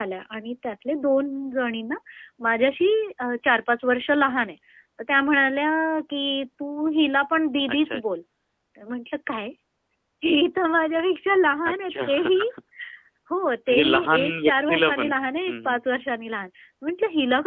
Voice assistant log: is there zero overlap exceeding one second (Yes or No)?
No